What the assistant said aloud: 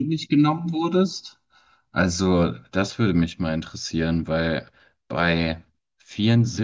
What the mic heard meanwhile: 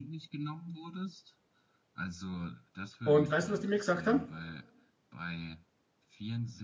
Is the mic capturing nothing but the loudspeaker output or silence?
No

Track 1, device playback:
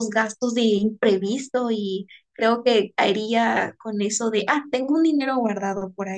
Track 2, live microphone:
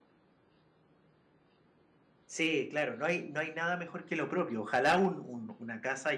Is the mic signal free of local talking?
No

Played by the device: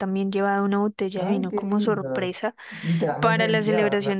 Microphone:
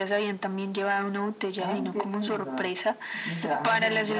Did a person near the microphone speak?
No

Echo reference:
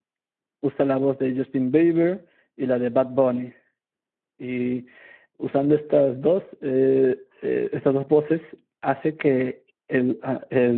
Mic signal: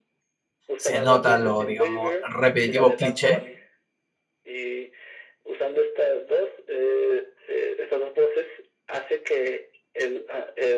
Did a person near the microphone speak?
Yes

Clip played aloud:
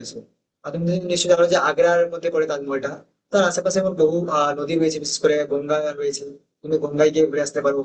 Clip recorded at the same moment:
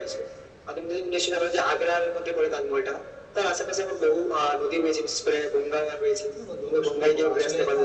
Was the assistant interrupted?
Yes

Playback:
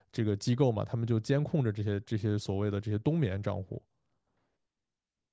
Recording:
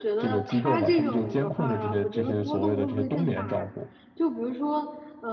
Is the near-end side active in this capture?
Yes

